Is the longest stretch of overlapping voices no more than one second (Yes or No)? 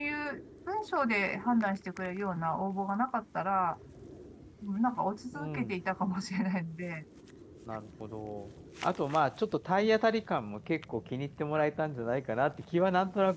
Yes